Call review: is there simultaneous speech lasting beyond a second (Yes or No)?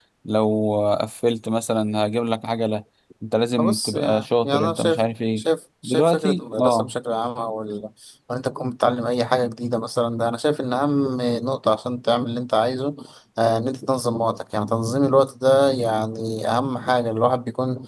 Yes